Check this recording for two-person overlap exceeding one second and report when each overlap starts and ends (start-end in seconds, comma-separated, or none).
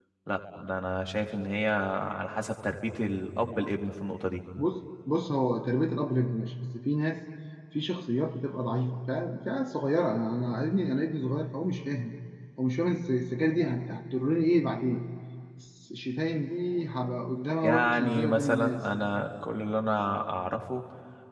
17.6-18.9